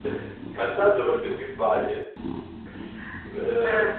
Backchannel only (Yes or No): Yes